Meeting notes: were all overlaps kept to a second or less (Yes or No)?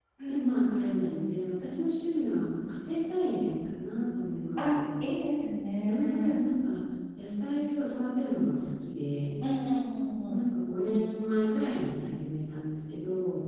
Yes